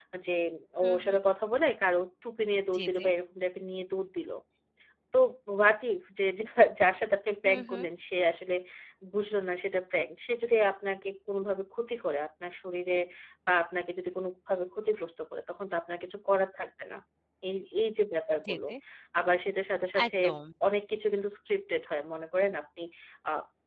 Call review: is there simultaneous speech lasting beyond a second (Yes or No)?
No